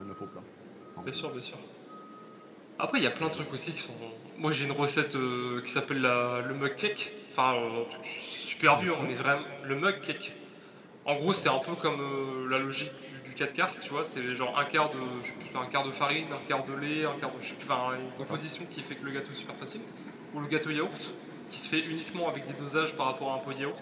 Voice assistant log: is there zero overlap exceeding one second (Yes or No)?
Yes